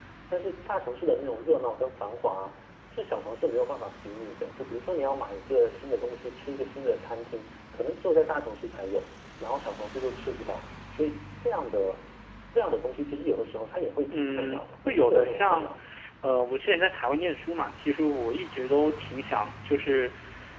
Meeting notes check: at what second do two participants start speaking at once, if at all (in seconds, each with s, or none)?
14.1 s